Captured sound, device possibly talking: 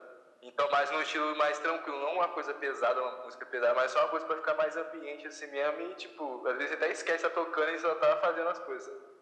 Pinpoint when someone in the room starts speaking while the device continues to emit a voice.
none

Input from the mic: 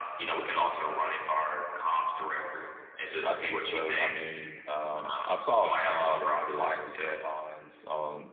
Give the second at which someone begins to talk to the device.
3.2 s

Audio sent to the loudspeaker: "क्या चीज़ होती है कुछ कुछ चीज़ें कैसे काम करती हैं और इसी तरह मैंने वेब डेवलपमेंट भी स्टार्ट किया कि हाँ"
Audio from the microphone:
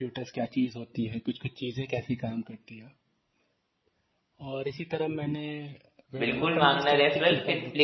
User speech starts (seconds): 6.2 s

